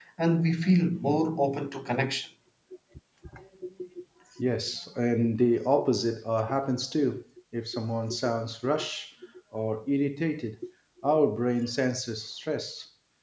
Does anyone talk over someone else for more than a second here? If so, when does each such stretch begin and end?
none

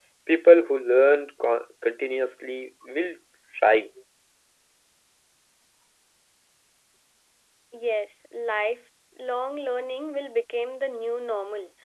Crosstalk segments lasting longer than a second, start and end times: none

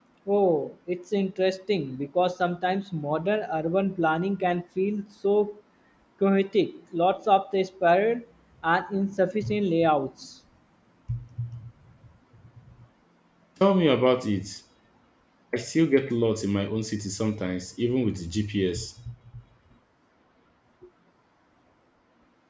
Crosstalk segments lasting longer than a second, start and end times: none

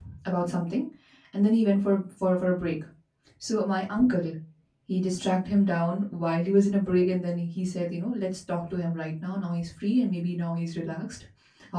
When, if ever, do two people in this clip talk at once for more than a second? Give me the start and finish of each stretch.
none

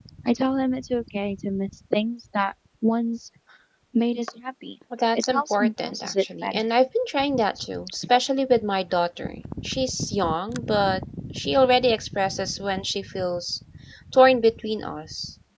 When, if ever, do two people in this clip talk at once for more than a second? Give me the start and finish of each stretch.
5.2-6.6

